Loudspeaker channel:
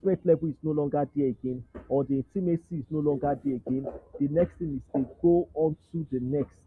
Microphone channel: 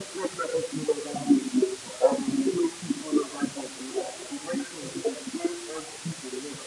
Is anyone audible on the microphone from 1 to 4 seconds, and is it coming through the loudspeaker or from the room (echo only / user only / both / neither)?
echo only